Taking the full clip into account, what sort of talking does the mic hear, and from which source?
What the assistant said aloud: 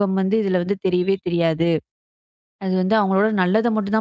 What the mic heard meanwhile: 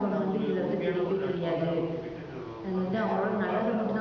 both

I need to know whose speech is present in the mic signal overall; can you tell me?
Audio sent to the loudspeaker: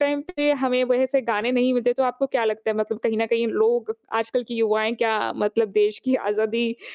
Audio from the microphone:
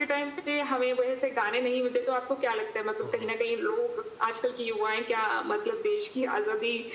both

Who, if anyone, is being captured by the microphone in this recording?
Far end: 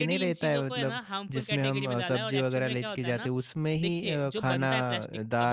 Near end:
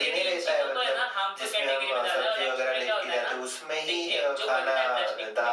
echo only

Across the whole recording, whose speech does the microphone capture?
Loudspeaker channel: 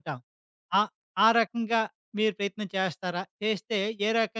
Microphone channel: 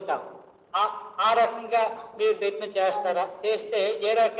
both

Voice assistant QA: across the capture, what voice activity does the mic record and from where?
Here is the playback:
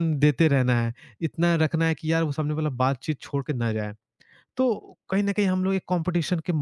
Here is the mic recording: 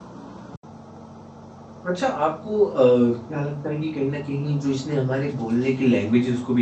user only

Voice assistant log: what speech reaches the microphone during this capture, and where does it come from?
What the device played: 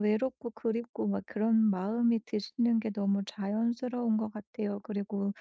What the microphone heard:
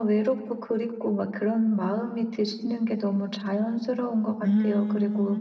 both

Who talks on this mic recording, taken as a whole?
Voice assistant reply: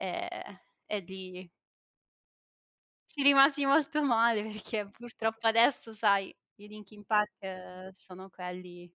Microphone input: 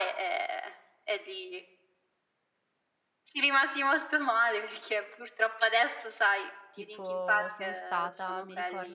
both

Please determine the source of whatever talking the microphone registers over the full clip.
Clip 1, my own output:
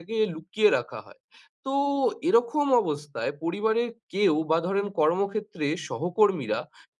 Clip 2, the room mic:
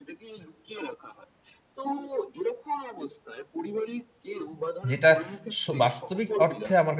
both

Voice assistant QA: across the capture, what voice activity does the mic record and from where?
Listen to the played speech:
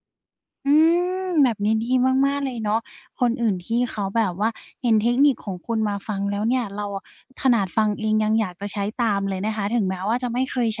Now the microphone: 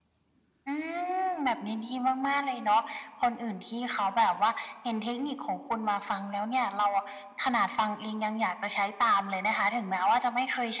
echo only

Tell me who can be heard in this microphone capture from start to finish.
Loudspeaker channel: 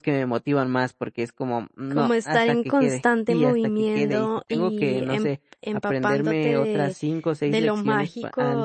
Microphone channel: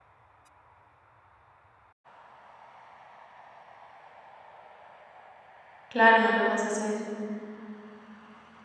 user only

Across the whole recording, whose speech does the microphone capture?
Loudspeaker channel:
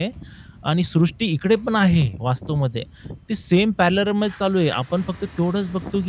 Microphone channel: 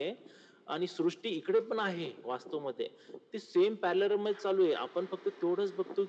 echo only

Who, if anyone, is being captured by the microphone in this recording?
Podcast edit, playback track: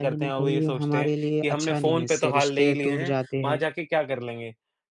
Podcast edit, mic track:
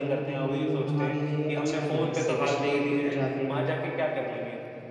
echo only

